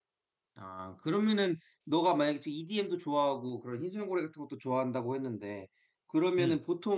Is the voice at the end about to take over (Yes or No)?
No